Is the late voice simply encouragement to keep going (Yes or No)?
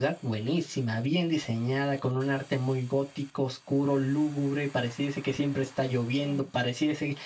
Yes